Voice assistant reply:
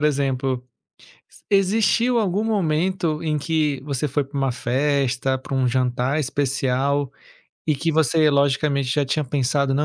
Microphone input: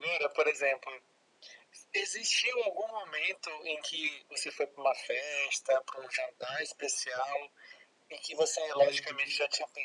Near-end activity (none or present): present